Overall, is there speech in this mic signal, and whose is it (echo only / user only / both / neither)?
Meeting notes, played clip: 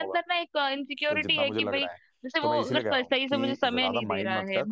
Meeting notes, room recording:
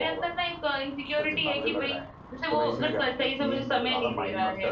echo only